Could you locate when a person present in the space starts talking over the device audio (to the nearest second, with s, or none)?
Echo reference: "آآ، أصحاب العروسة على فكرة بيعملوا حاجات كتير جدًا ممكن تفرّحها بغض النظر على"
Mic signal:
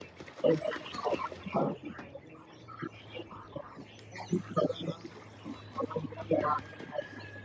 none